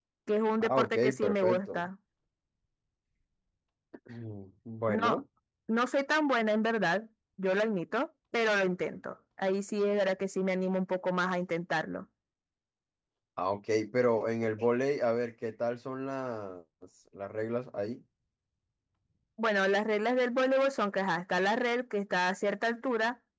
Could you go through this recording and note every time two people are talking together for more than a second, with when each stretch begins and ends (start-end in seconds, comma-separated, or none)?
0.6-1.8